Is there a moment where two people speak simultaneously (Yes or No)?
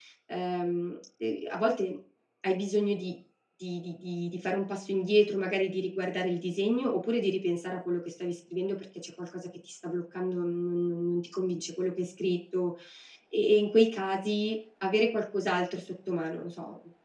No